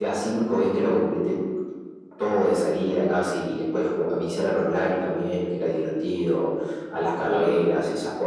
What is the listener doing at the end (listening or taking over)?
listening